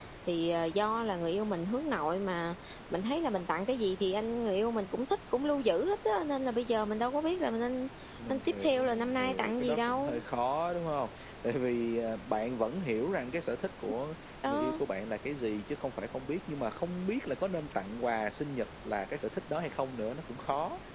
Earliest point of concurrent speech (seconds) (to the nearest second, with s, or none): 8 s